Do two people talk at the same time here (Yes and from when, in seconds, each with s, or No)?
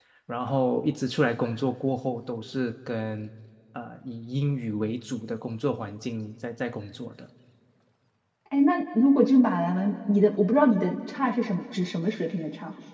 No